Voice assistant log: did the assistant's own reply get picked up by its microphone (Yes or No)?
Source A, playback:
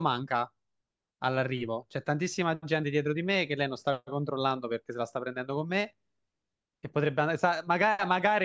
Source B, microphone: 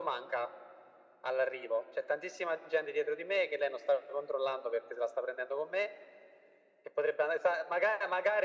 Yes